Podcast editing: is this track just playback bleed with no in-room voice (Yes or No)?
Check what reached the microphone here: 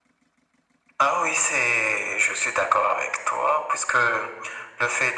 Yes